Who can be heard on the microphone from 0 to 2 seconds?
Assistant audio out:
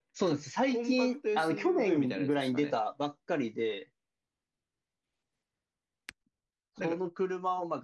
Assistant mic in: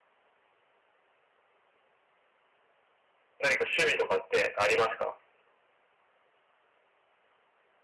neither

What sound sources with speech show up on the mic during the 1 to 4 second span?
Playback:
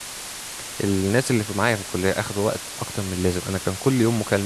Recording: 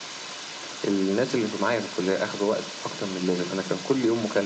echo only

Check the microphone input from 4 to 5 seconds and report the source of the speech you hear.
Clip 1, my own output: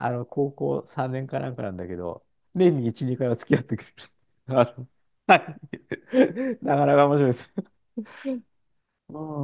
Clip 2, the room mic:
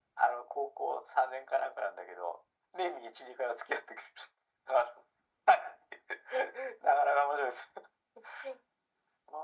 echo only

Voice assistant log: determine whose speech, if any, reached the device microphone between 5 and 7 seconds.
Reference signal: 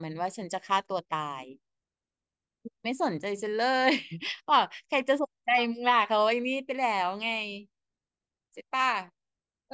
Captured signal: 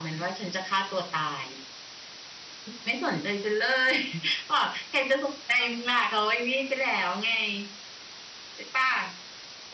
echo only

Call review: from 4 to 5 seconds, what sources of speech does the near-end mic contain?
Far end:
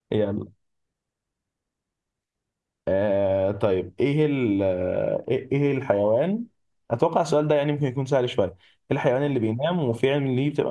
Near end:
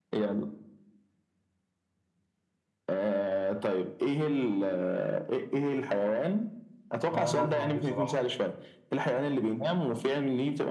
echo only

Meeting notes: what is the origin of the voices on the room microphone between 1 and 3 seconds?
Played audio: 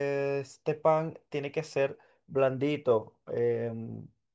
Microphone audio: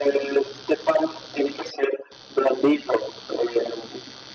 echo only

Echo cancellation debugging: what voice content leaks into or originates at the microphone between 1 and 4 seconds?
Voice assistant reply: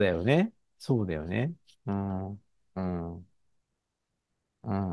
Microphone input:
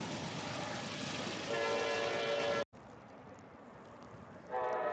neither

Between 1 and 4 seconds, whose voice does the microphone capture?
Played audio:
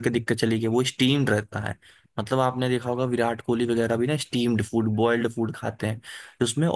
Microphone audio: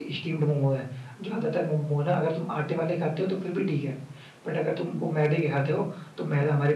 user only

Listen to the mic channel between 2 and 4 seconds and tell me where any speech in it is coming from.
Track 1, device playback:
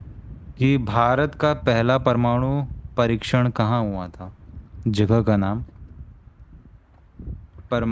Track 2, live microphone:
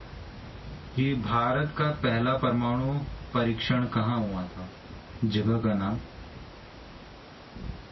echo only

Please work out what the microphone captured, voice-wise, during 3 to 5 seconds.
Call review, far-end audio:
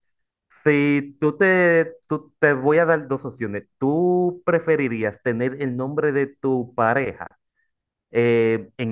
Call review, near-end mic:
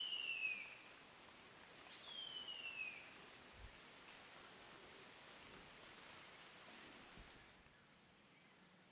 neither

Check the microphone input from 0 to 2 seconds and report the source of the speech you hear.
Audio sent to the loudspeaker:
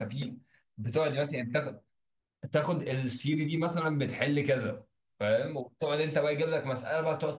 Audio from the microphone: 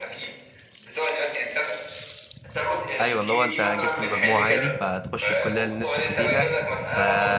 echo only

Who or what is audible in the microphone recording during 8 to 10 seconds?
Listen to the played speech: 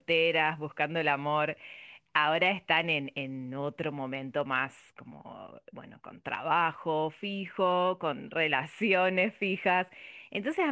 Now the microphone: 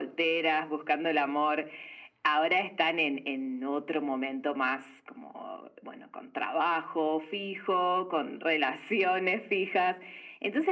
echo only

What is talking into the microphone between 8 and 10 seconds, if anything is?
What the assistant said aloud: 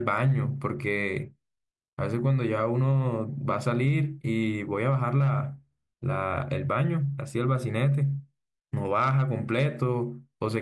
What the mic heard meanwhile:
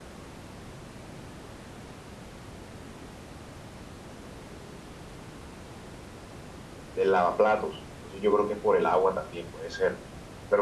user only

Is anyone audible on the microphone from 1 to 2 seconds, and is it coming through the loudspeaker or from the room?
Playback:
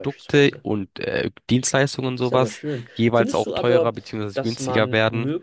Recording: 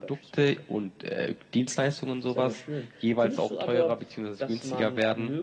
echo only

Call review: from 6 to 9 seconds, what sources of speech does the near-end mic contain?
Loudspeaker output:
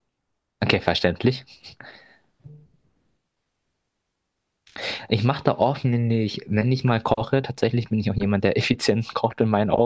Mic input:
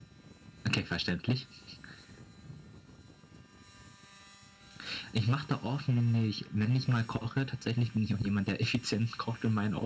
echo only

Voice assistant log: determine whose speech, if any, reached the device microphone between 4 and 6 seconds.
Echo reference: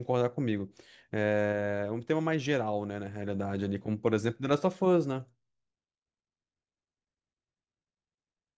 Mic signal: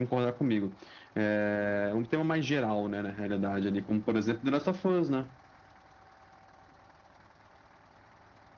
echo only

